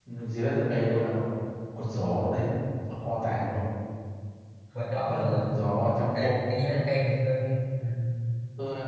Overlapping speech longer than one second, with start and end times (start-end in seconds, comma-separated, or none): none